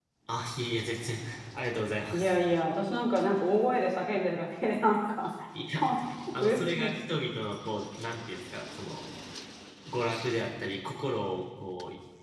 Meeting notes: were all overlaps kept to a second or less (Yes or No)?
Yes